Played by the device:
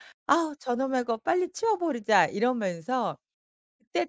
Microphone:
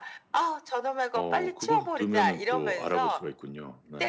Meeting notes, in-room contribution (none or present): present